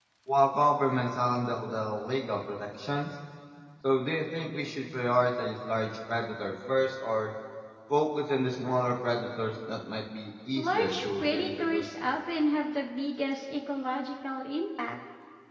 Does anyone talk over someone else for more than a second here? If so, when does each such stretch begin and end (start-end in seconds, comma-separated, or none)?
10.6-11.8